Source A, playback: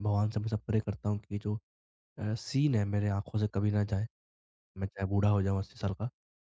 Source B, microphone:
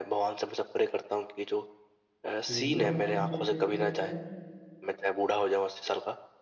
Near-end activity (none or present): present